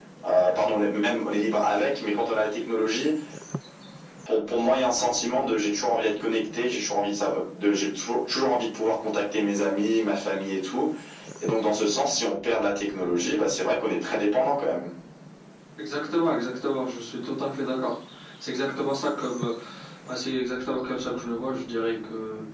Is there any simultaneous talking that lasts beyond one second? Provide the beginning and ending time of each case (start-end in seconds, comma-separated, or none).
none